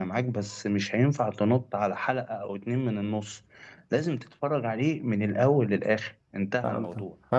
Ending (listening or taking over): taking over